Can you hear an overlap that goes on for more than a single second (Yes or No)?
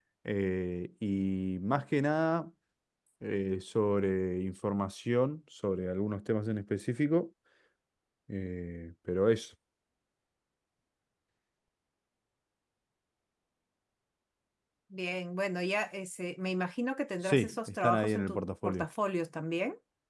Yes